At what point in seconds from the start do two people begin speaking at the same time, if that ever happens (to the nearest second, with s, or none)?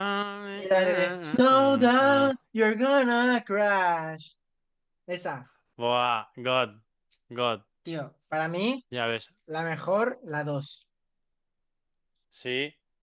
1 s